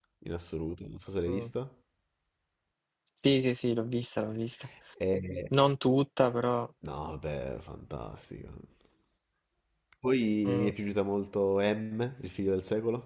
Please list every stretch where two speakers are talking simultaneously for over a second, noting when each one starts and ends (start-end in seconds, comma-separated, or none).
none